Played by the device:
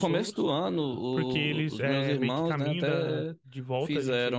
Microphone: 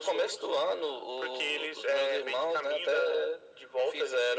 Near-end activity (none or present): none